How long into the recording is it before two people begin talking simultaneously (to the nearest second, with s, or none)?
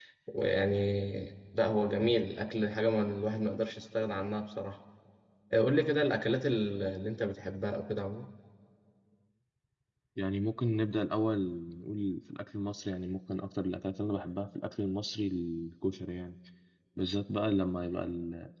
none